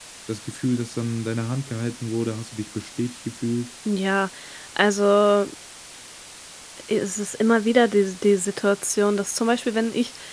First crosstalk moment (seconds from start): none

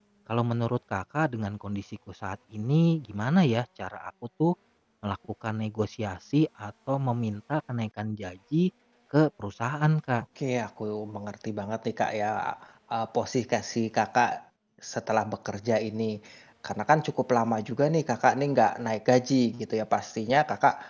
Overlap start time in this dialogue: none

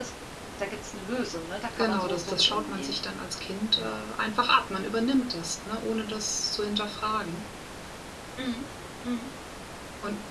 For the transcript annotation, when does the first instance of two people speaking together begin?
1.7 s

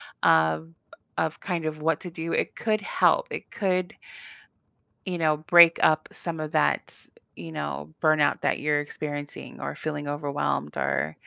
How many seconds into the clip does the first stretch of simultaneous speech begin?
none

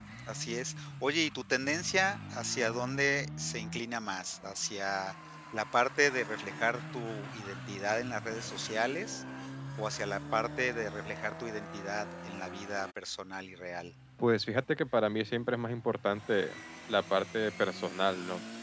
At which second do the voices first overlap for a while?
none

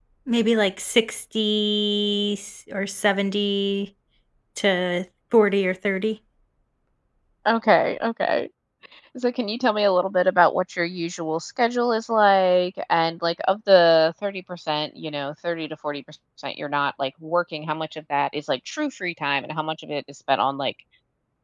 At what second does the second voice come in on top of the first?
none

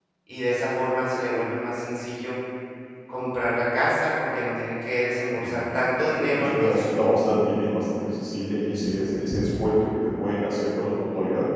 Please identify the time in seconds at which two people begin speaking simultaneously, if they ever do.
5.3 s

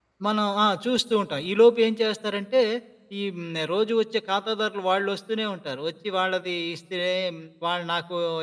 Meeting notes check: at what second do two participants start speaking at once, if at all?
none

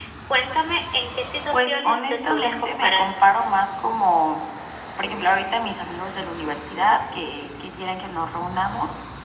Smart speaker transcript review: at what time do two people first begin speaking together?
1.5 s

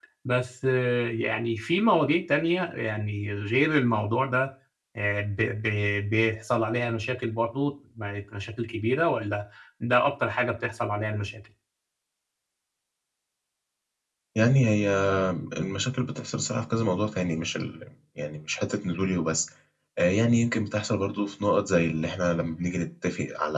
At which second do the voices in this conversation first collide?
none

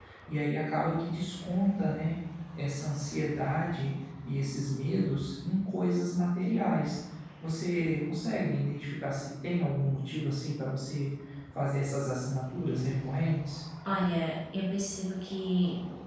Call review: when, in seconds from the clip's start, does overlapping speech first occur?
none

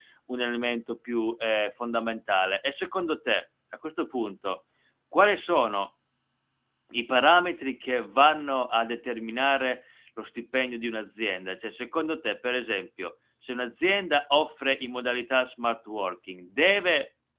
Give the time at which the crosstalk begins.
none

